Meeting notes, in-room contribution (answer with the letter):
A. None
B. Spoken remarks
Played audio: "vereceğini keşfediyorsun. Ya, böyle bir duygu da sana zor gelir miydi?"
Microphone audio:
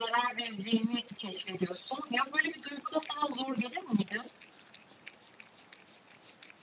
A